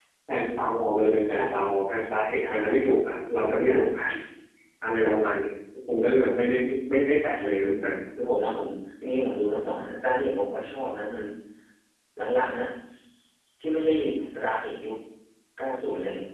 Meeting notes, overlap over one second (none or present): none